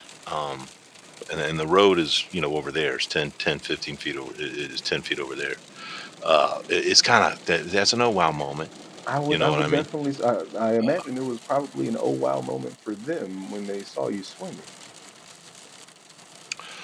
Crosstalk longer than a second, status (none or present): none